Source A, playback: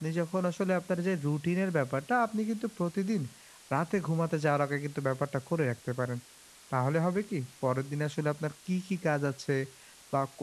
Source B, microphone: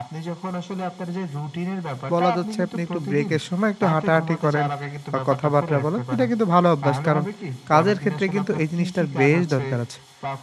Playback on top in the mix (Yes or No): No